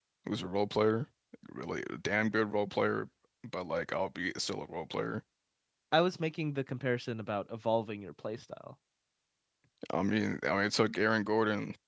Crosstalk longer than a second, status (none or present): none